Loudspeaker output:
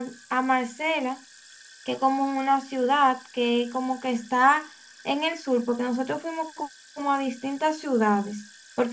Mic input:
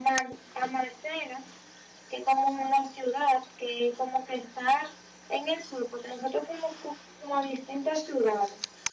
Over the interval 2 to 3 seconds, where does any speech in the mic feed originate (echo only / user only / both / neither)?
echo only